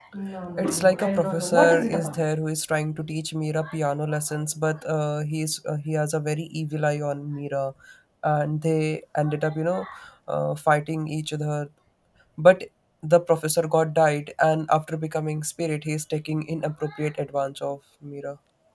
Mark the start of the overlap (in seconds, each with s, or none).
0.6 s